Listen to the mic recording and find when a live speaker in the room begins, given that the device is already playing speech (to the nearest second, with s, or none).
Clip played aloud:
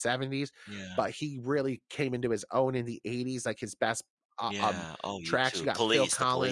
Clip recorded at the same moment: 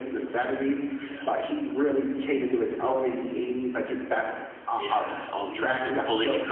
none